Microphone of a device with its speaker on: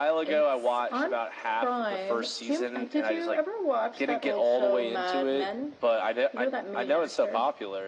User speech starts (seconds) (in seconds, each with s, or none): none